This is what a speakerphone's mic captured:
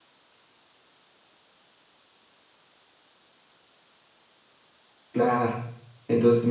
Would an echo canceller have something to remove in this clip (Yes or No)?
No